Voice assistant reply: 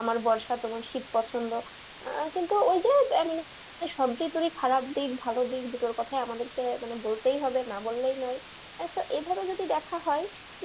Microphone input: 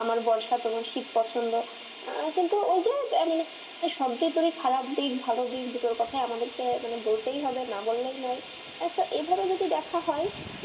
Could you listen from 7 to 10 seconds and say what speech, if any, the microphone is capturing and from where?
echo only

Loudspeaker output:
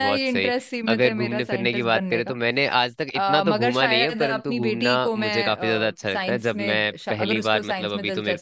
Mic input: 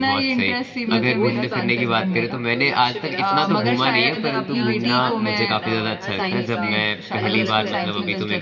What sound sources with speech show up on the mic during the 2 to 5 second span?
both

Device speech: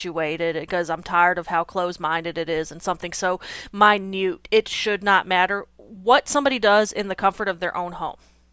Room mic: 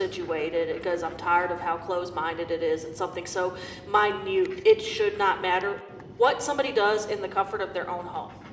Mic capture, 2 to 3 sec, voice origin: echo only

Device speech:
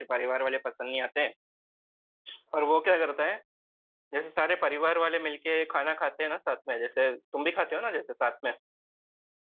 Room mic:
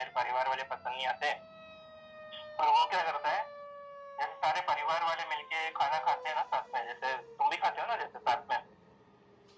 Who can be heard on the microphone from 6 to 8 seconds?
echo only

